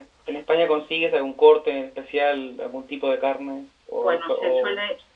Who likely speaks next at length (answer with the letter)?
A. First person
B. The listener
B